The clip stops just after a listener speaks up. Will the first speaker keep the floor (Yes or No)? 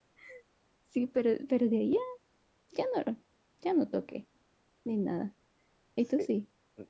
No